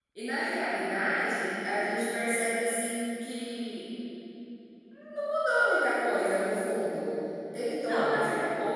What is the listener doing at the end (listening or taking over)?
listening